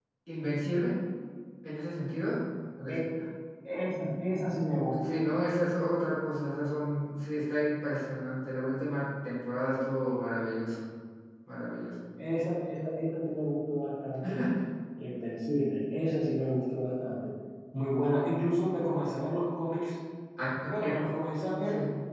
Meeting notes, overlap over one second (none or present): none